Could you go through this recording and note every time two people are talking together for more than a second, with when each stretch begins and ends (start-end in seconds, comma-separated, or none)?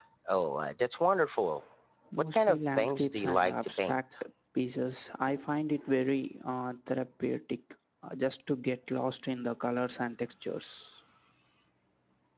2.2-4.0